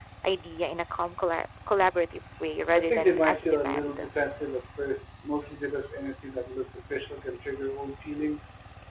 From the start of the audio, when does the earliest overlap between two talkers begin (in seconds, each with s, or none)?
2.7 s